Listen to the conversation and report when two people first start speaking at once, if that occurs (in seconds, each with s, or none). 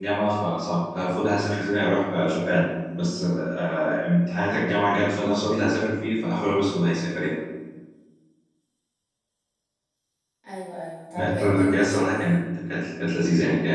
11.1 s